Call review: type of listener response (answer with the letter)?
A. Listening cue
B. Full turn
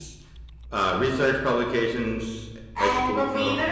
B